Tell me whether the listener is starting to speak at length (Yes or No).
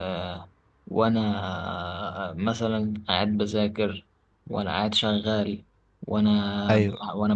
No